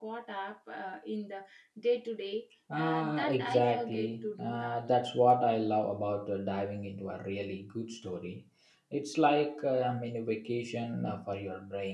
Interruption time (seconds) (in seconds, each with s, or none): 2.7 s